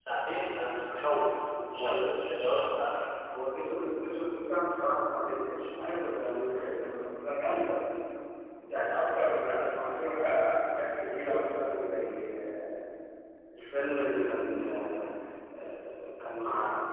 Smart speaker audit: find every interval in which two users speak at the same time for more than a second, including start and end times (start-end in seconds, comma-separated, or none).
none